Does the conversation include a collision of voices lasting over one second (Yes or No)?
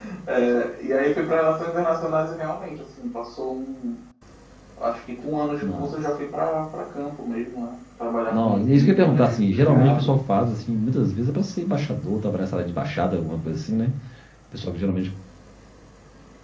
Yes